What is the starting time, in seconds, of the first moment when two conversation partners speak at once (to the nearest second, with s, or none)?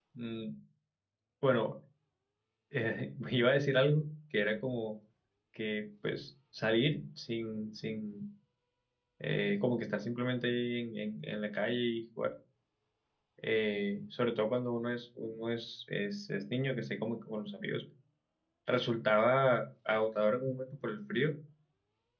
none